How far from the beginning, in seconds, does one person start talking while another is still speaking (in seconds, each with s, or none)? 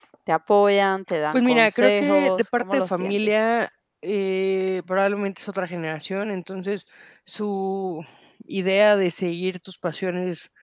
1.3 s